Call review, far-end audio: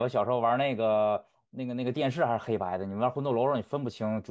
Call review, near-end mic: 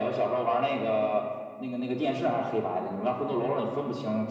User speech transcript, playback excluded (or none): none